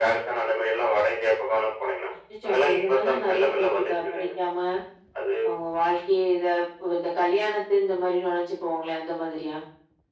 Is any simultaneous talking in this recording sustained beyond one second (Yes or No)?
Yes